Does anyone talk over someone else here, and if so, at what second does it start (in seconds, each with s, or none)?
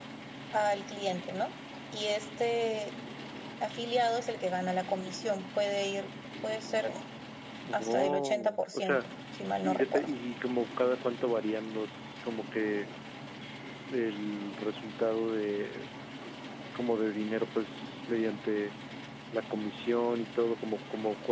7.7 s